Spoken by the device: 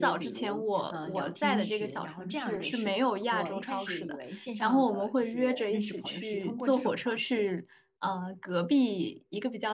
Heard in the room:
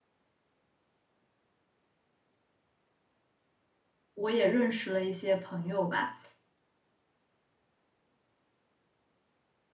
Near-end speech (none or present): present